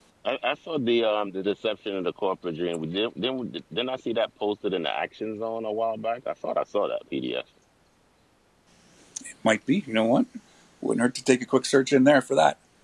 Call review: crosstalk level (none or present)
none